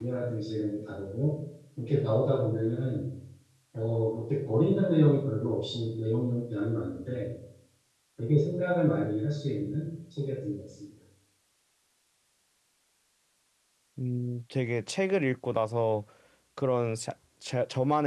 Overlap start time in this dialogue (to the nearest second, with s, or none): none